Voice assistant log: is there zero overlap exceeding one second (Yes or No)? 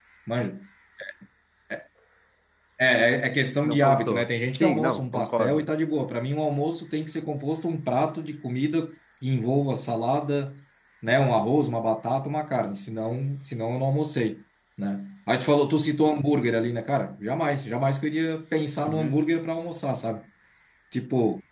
No